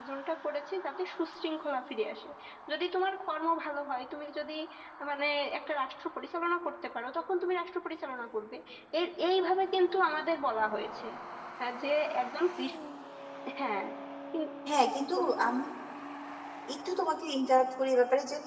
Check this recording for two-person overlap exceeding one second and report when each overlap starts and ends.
none

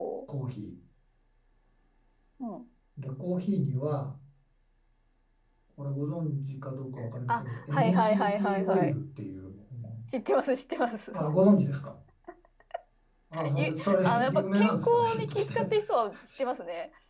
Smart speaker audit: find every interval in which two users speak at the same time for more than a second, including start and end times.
7.3-8.9, 13.6-15.6

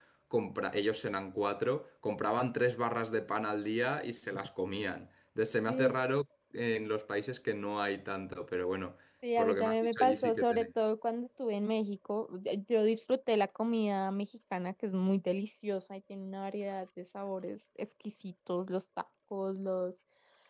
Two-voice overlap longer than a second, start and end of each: 9.4-10.7

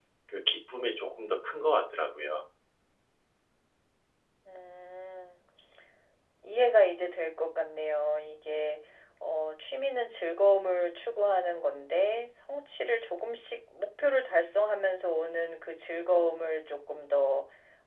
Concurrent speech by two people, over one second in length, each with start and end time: none

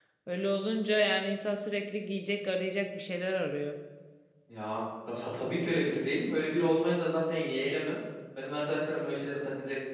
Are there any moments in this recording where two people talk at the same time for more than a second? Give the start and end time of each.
none

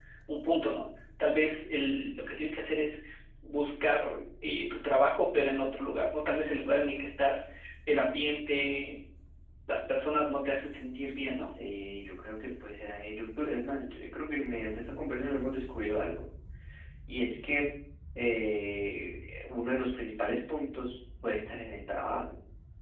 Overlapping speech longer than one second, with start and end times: none

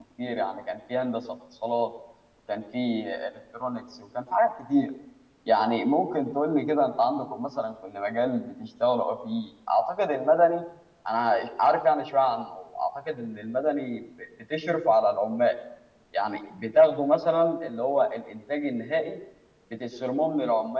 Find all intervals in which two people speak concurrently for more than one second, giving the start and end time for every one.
none

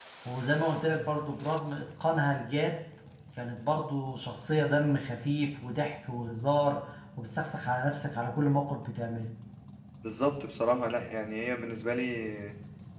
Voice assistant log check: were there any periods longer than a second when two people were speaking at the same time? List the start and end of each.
none

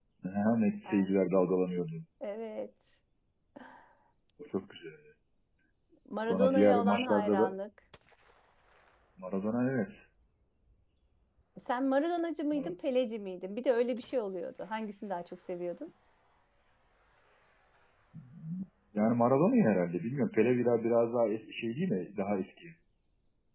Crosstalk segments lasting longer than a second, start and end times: 6.2-7.5

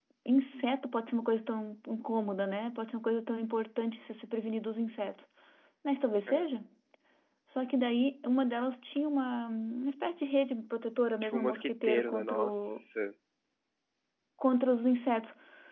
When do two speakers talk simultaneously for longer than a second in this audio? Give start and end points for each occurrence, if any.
11.2-12.8

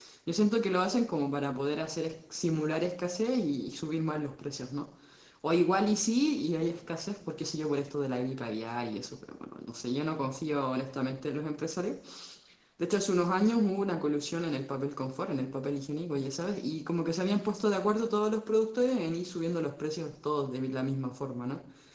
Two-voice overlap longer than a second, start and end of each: none

